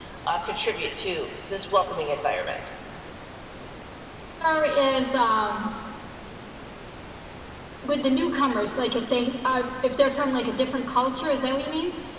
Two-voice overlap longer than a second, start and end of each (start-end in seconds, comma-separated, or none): none